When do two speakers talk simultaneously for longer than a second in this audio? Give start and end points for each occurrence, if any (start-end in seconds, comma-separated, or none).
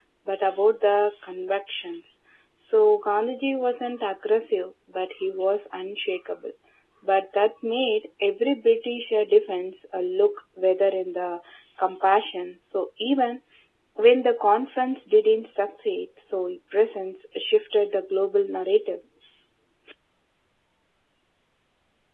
none